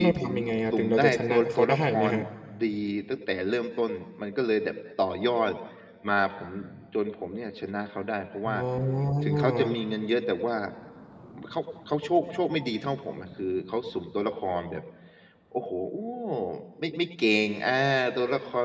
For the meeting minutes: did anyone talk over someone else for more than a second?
Yes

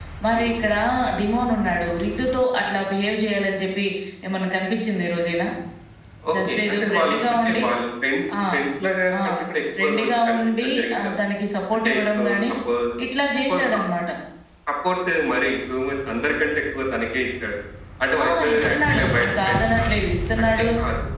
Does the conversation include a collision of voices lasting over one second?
Yes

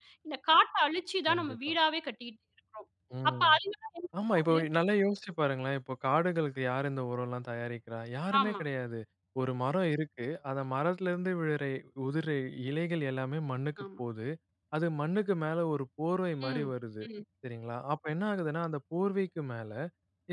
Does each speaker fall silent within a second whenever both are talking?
Yes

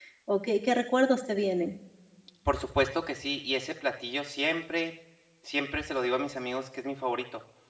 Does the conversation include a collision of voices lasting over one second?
No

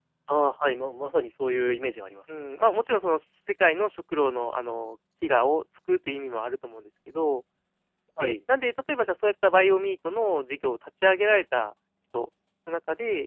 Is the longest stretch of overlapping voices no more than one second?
Yes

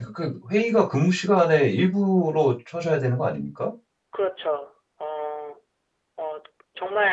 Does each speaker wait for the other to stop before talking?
Yes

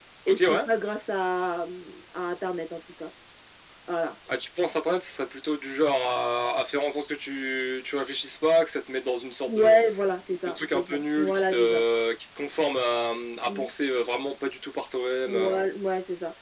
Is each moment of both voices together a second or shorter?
No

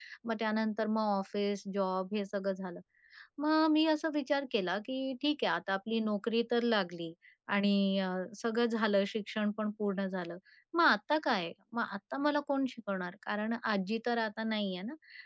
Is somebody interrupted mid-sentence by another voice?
No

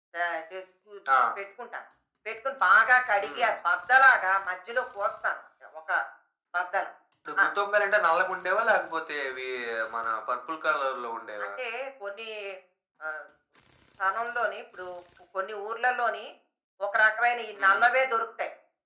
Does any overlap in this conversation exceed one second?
No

